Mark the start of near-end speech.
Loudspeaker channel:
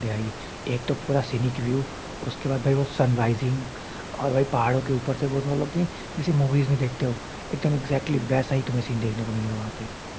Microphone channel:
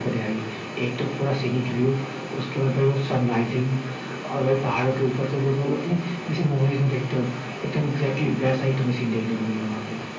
none

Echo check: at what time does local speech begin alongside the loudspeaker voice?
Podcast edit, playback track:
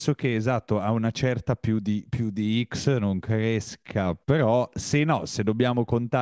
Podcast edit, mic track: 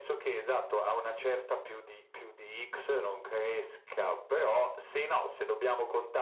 none

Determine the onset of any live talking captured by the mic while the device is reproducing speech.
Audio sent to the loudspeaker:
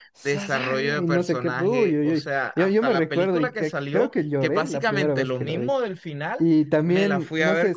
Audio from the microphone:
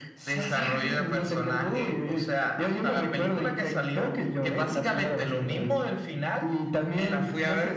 none

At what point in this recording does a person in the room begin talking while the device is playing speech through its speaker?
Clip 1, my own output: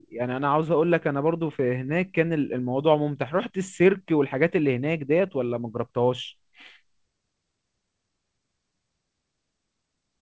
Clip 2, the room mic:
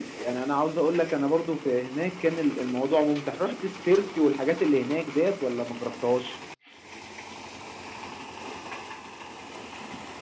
none

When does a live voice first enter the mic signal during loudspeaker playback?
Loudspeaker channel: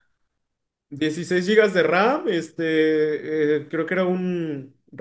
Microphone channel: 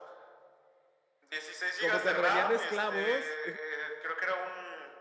1.8 s

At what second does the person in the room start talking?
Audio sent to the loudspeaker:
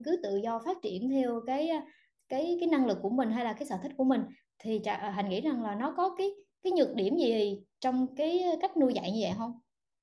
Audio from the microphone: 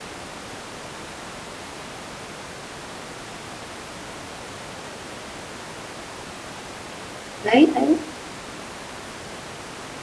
7.4 s

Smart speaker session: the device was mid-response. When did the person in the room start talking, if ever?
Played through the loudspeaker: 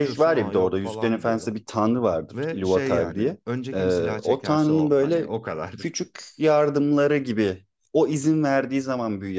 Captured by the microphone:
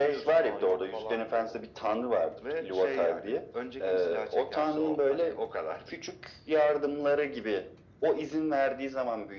none

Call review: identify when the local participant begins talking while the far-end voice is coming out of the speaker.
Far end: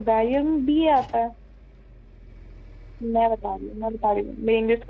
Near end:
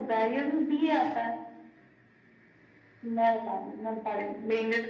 none

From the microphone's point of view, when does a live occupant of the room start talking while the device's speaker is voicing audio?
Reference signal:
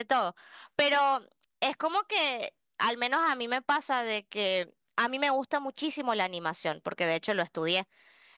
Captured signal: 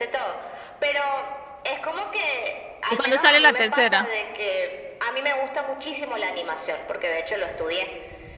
2.9 s

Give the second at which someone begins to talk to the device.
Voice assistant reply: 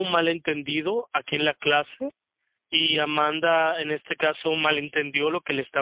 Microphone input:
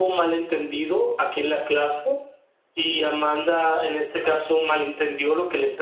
none

